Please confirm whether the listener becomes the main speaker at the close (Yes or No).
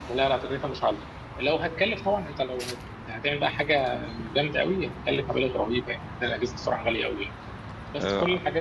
No